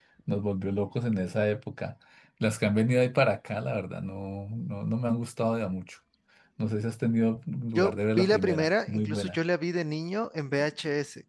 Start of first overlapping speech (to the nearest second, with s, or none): 8 s